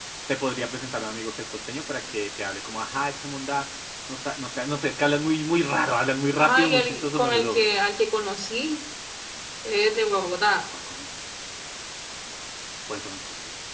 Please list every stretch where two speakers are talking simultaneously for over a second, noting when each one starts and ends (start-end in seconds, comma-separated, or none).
6.4-7.7